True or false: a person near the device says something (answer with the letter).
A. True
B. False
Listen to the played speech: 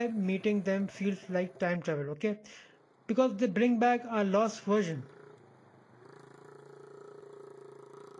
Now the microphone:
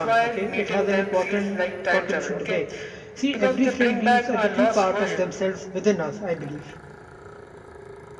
A